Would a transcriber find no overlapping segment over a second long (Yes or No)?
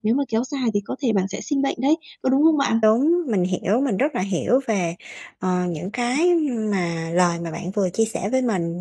Yes